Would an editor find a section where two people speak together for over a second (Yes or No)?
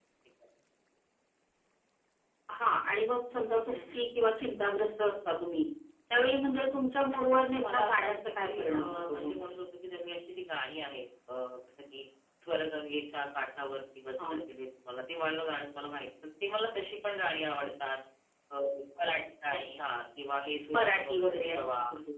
Yes